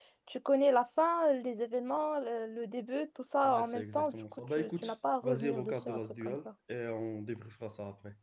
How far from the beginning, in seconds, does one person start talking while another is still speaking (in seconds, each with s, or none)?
3.4 s